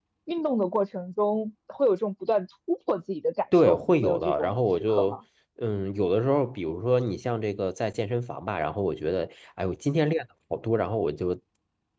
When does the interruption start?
3.5 s

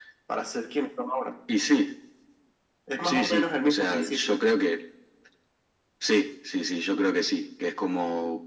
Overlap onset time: 3.0 s

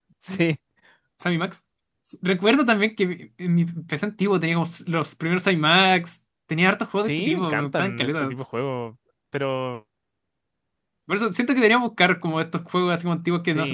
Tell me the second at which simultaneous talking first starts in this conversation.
7.0 s

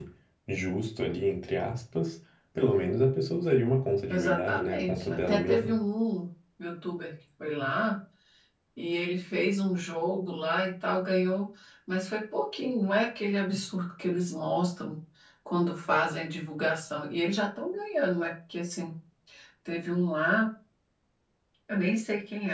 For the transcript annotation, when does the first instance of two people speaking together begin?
4.1 s

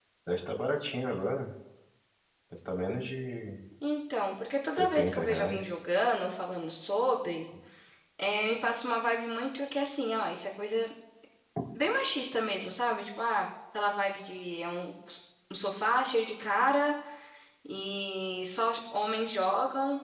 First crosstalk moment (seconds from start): 4.5 s

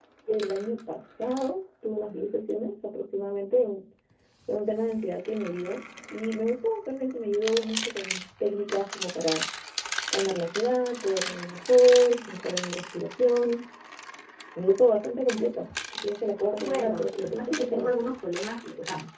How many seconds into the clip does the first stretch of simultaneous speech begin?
16.6 s

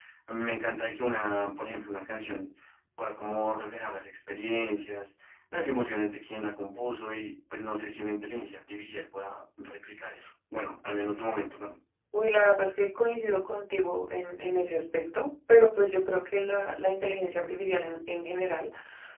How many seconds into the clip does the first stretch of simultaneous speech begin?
none

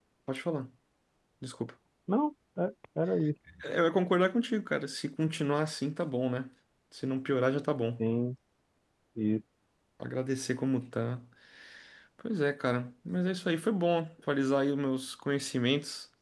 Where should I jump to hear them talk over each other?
none

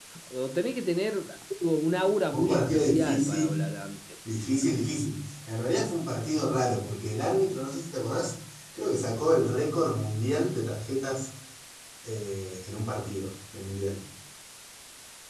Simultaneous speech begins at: 2.3 s

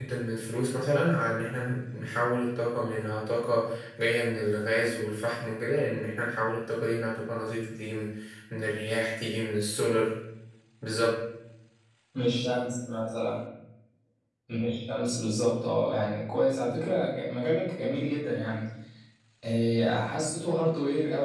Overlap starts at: none

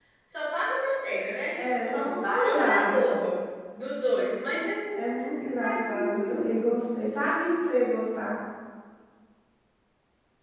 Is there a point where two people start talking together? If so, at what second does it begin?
1.6 s

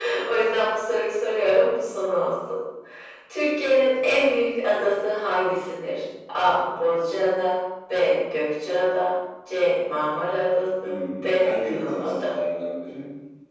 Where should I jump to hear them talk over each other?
10.8 s

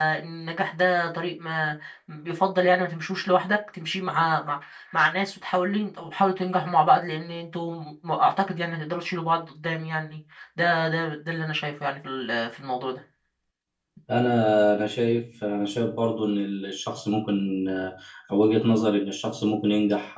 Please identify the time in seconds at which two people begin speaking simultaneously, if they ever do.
none

